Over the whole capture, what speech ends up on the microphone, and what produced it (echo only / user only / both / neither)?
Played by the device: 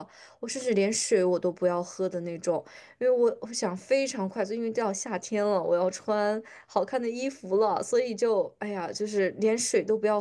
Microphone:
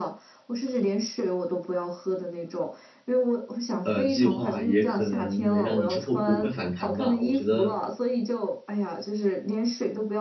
both